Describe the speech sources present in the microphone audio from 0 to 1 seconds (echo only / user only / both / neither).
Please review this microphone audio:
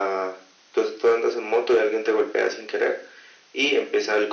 echo only